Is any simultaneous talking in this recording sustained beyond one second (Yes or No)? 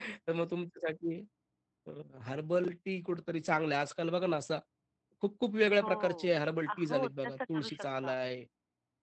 Yes